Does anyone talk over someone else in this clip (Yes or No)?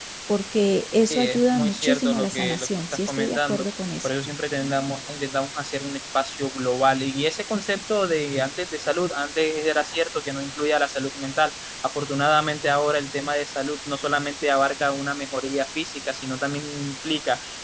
Yes